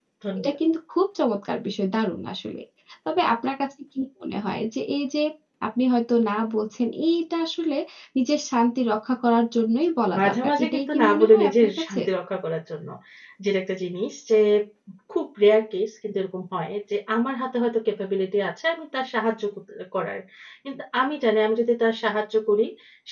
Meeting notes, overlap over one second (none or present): present